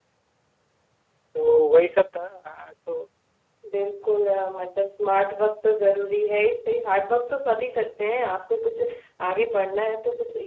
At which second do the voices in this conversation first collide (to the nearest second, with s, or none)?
none